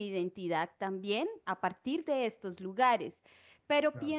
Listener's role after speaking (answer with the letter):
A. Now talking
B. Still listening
B